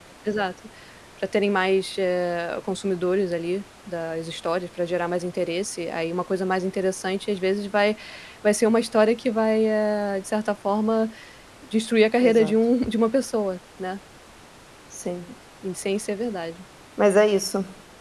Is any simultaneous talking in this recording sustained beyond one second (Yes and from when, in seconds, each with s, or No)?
No